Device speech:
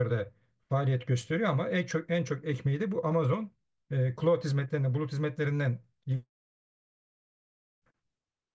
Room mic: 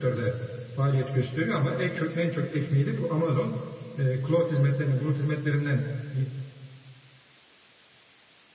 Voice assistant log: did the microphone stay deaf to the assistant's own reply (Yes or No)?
No